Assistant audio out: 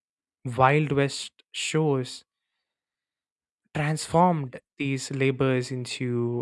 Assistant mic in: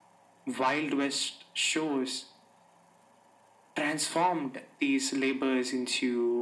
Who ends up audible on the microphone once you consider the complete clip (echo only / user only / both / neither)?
echo only